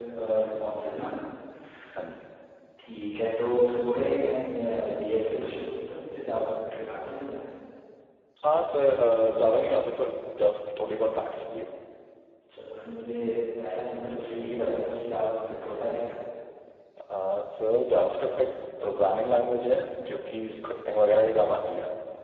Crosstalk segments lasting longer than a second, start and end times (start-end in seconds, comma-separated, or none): none